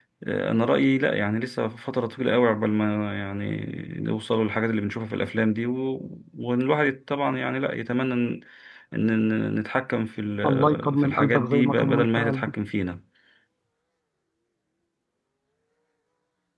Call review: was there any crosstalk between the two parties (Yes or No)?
Yes